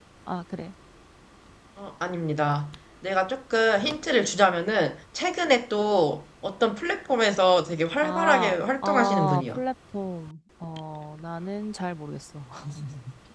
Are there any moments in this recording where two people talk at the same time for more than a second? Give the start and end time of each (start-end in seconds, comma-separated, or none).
8.0-9.6